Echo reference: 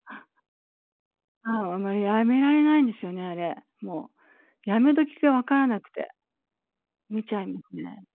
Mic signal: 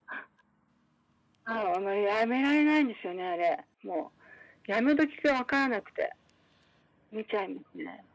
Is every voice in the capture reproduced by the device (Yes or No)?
Yes